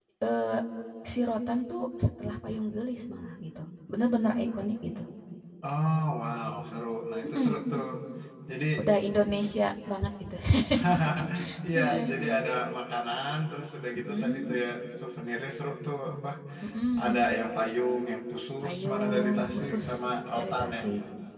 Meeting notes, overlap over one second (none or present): present